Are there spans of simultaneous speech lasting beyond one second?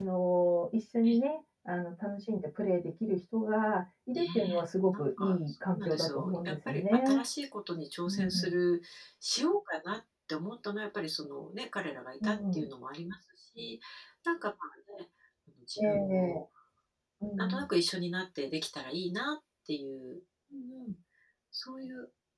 Yes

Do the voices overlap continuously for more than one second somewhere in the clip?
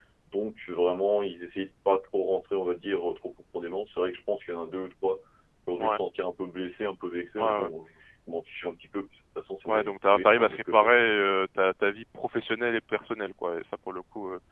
Yes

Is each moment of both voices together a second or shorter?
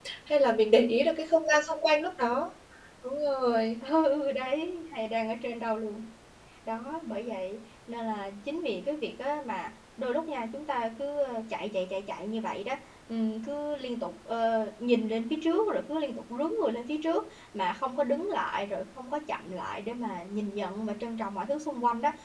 Yes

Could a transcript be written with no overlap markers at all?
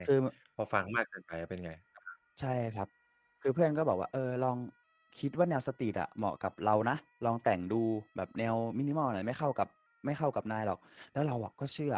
Yes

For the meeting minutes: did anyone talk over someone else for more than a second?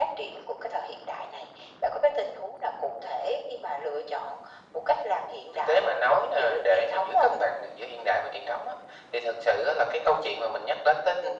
Yes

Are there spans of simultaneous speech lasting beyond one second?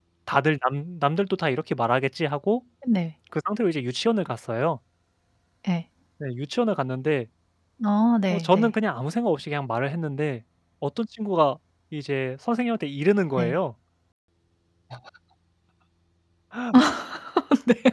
No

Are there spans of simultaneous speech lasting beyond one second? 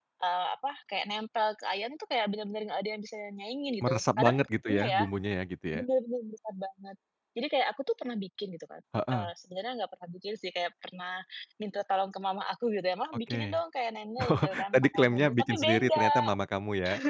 Yes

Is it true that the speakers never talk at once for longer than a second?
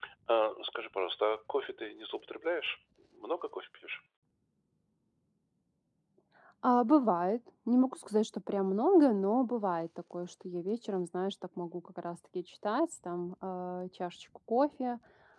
Yes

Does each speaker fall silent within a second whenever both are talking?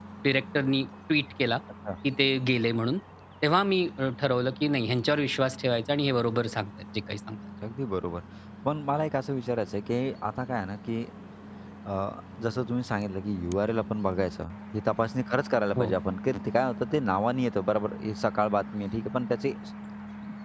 Yes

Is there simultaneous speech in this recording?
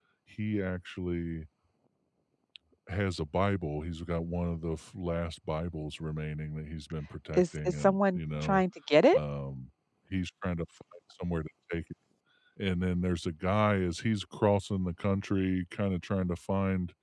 Yes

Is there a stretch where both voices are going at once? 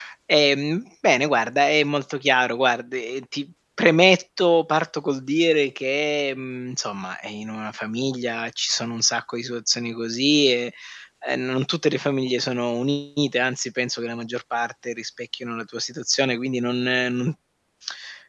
No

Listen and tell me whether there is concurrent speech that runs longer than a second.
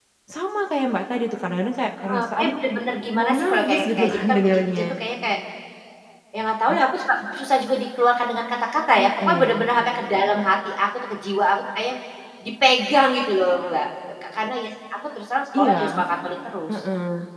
Yes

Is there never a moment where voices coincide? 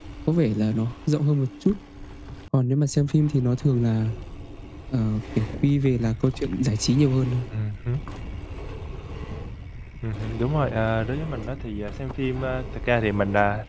Yes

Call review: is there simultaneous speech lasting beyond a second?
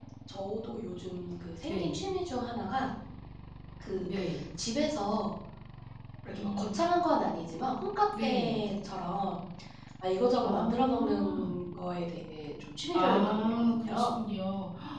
Yes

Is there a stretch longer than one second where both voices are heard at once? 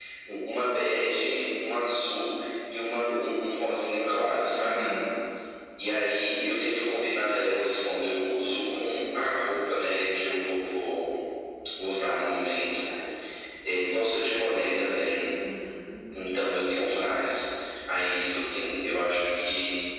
No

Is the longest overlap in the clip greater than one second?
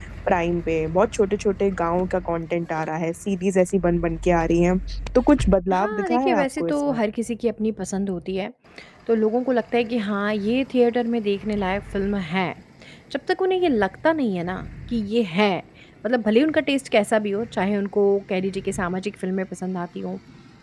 Yes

